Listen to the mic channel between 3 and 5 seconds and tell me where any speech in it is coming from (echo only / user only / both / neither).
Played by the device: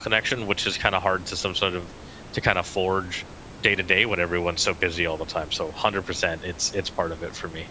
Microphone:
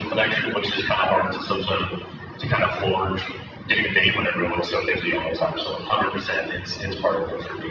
echo only